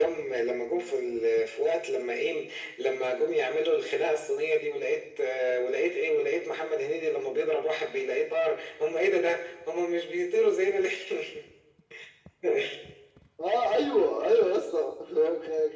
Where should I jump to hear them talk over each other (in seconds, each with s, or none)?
none